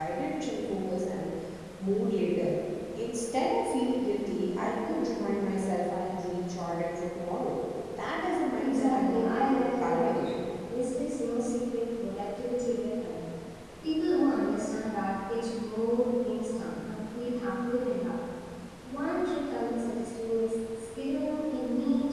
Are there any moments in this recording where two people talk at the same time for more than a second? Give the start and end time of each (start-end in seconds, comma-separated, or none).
8.6-10.3